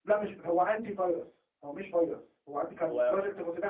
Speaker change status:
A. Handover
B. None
B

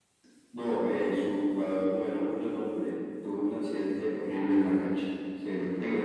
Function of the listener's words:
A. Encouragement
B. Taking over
A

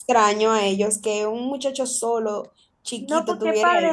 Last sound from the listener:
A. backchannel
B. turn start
B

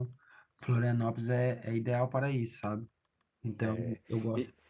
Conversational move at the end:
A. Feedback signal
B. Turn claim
B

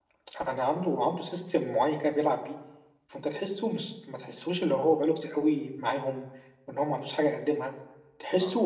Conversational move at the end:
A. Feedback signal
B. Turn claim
A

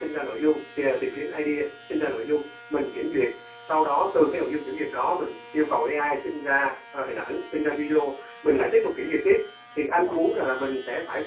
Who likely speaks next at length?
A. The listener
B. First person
B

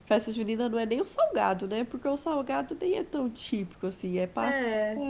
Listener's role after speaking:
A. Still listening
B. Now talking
A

